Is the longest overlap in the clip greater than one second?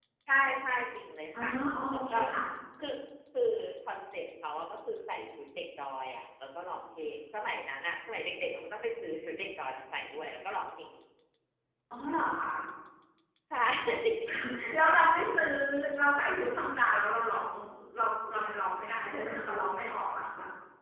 No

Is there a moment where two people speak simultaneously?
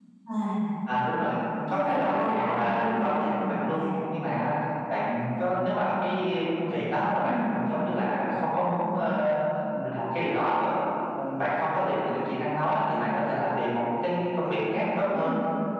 Yes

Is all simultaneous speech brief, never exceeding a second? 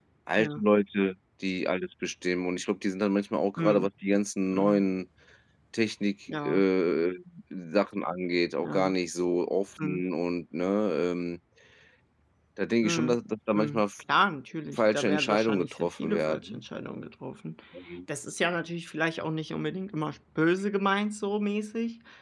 No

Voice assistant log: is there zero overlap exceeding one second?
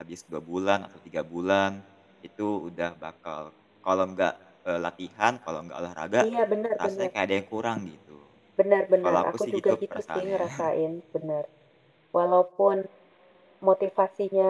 No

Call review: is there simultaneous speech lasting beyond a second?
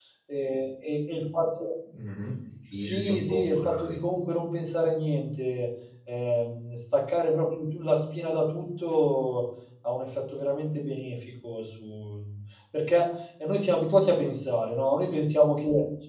Yes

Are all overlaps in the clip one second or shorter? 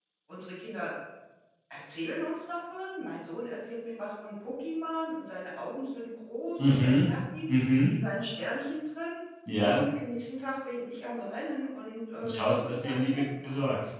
No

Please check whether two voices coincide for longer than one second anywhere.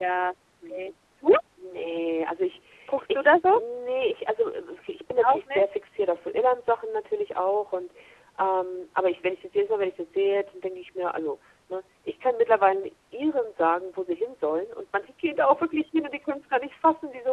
No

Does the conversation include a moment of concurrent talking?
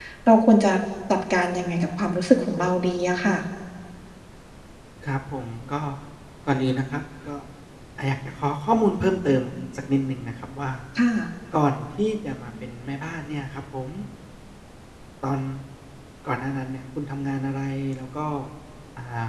No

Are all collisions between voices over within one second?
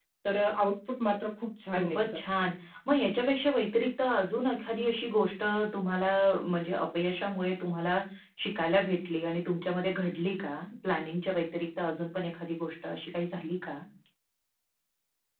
Yes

